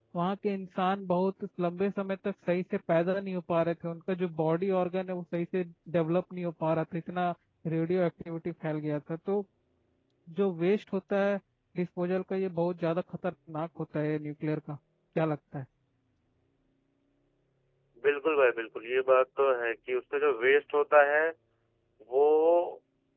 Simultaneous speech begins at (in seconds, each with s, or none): none